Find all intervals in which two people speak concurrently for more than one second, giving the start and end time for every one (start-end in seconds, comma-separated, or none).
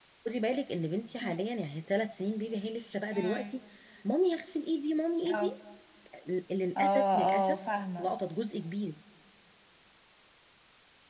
6.8-8.1